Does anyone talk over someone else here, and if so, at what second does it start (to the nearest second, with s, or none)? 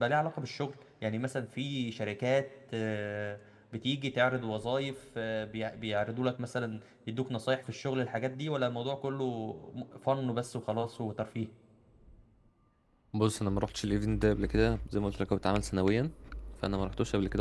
none